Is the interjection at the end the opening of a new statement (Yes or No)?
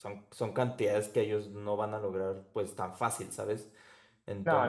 No